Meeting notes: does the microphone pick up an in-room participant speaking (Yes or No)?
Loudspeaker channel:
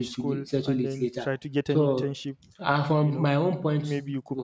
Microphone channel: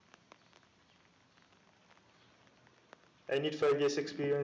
Yes